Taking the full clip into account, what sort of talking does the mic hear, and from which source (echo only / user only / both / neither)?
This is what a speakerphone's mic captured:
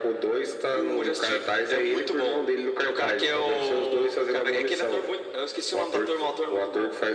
echo only